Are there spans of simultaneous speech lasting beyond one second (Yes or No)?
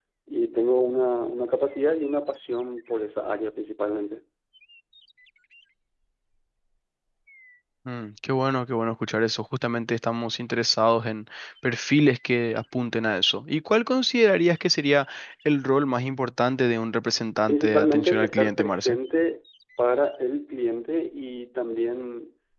Yes